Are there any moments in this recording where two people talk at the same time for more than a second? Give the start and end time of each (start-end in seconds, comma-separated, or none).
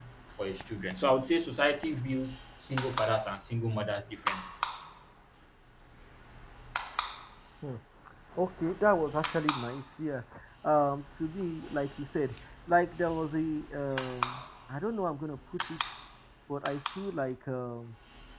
none